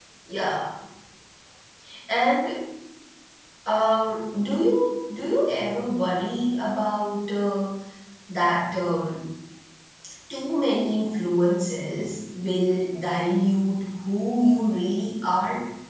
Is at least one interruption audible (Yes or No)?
No